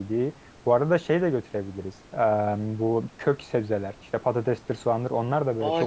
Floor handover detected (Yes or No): Yes